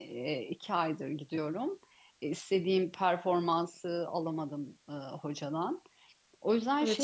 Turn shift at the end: Yes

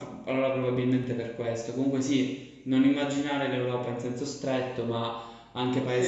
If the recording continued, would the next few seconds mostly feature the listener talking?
No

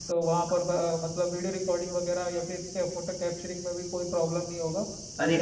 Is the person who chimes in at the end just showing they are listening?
No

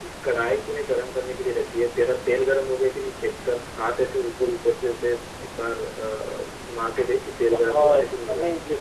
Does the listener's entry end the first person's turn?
Yes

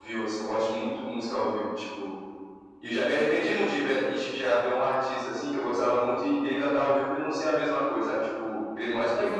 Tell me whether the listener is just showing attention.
Yes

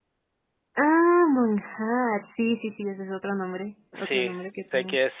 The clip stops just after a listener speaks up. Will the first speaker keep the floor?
No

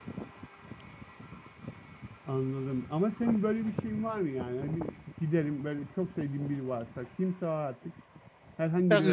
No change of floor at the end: No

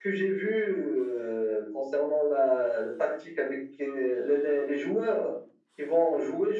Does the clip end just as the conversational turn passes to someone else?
No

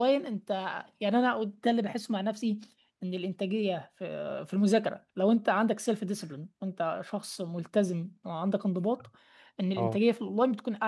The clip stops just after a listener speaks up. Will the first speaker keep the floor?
Yes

